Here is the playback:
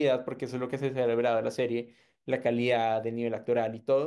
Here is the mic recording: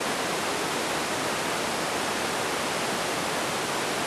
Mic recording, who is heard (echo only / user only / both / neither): neither